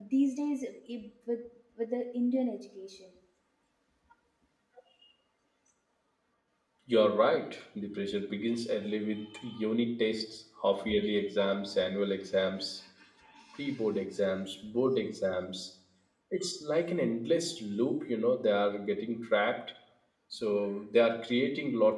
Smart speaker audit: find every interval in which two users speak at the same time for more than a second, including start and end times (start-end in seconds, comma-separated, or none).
none